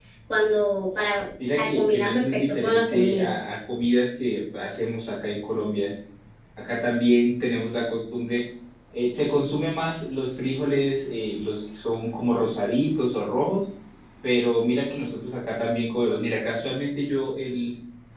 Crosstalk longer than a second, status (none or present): present